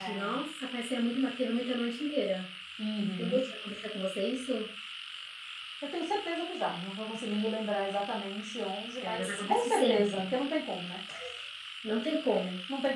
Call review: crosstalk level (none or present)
present